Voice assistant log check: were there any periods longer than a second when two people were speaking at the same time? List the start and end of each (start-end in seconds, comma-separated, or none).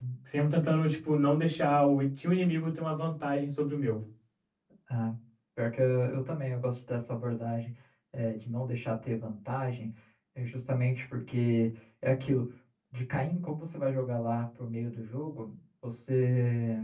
none